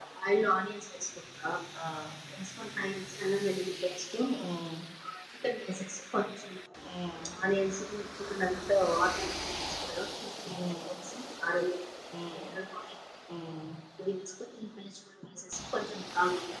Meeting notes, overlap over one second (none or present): none